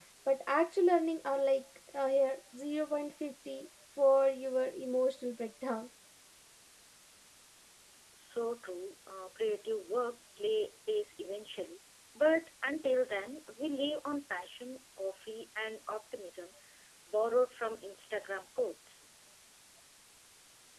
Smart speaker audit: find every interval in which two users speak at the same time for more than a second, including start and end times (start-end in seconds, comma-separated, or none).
none